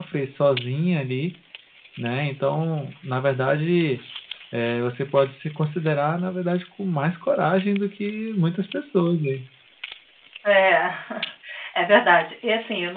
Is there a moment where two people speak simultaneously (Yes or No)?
No